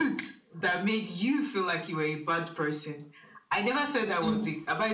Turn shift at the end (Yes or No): No